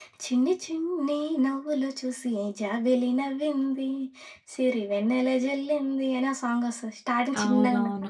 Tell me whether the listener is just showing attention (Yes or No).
No